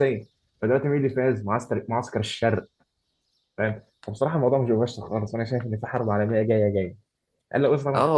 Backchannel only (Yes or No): No